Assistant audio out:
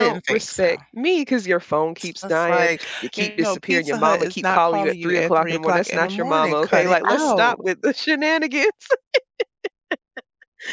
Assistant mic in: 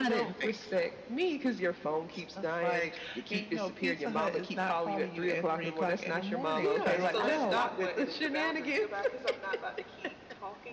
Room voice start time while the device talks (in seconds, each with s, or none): 6.6 s